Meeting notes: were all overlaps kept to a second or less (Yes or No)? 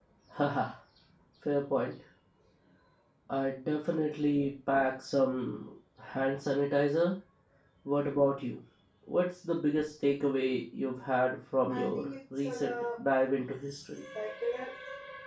No